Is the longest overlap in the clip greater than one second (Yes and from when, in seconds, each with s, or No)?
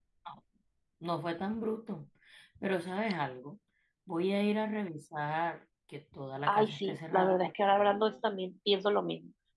Yes, from 6.5 s